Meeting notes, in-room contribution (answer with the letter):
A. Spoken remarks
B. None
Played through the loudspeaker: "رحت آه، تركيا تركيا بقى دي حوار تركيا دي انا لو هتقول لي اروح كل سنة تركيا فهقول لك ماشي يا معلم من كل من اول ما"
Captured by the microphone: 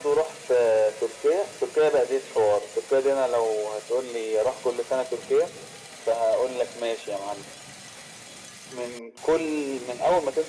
B